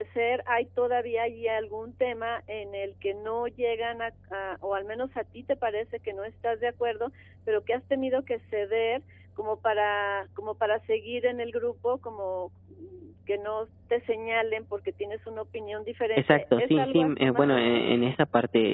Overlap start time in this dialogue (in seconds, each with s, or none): 16.2 s